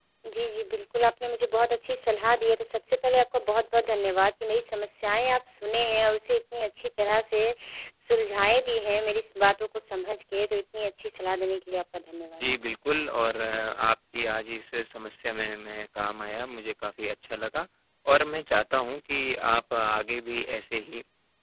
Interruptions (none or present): none